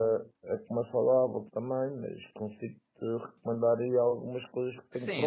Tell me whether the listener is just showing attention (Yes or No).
No